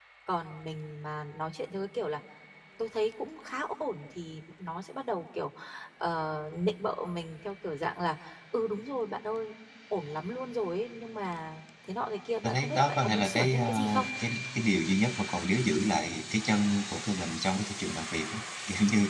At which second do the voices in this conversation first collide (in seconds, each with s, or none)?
12.4 s